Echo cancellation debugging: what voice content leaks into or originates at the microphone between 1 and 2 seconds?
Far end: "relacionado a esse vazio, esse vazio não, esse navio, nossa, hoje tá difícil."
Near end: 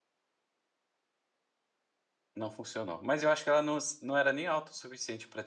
neither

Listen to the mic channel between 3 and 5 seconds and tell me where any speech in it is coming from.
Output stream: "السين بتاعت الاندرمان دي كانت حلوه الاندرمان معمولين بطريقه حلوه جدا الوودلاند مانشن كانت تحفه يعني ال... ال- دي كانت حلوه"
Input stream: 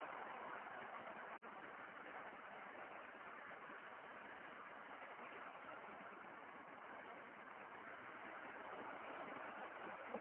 neither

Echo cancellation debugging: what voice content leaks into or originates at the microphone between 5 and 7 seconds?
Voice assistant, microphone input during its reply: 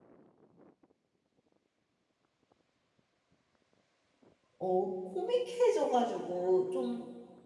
user only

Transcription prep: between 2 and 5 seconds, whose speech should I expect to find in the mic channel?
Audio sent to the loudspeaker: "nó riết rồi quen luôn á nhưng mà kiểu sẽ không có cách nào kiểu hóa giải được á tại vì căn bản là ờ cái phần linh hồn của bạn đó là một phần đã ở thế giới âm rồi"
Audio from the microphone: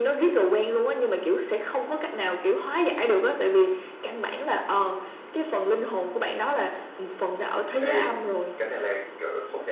echo only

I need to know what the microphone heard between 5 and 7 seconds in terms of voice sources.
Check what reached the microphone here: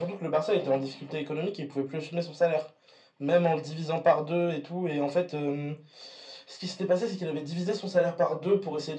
echo only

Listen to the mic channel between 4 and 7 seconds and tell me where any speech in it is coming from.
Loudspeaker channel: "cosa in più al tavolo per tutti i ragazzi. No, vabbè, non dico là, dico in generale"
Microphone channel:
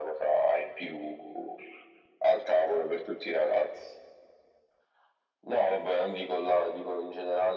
echo only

